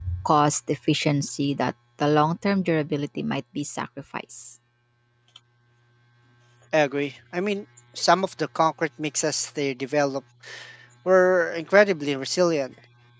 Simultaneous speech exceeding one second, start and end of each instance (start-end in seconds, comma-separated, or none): none